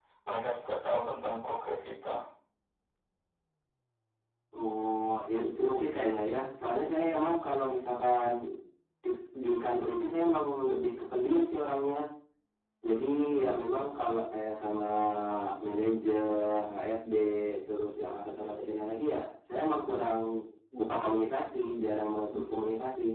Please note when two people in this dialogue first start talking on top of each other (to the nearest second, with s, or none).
none